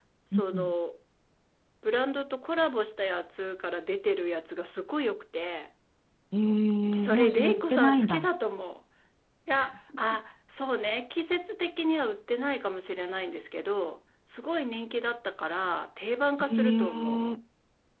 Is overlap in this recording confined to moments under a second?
No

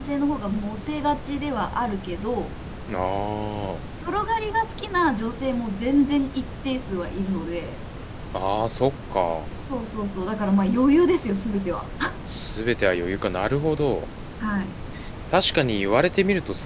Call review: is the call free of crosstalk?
Yes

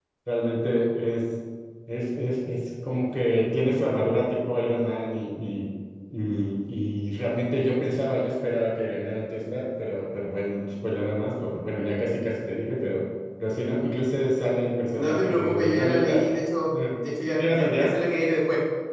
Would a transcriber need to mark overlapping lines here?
Yes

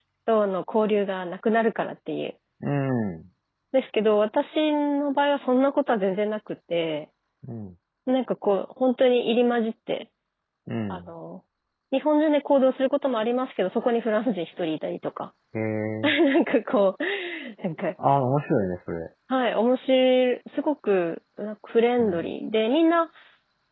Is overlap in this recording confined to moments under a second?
Yes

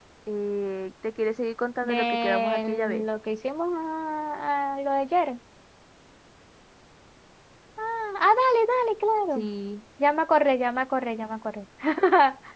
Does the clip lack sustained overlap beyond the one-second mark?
No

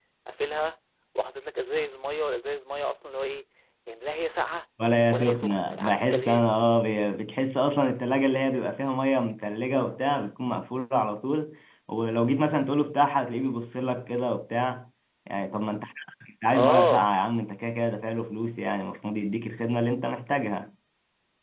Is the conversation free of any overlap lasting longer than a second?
No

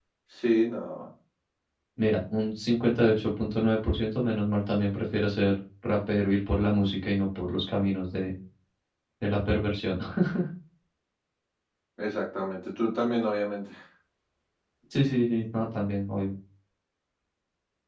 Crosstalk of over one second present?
No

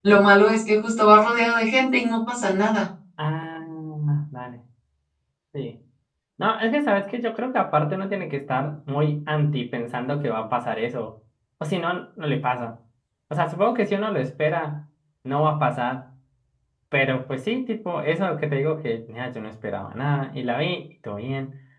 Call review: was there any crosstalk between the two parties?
No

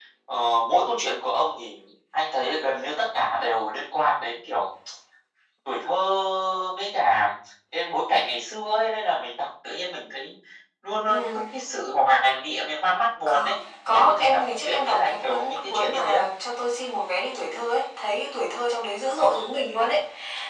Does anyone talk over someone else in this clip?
Yes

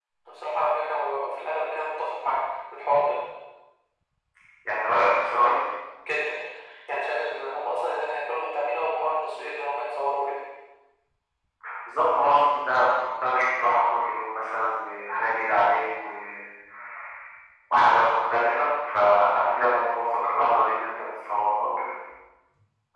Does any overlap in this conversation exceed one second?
No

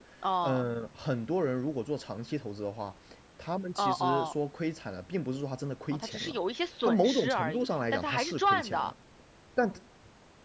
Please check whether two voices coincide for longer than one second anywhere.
Yes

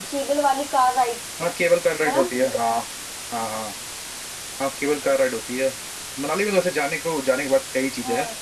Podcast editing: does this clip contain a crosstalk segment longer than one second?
No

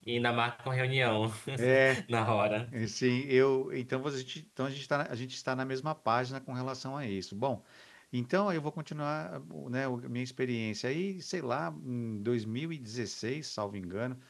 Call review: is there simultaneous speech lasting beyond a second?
No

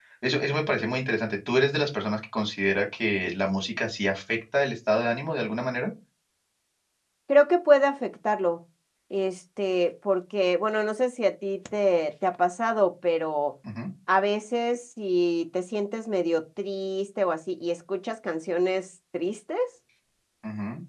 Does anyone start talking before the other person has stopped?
No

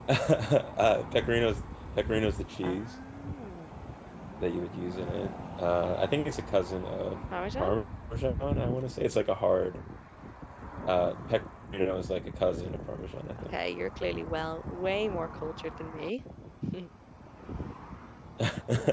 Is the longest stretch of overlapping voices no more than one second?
Yes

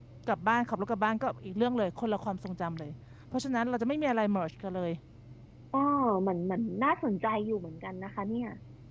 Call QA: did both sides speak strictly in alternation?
Yes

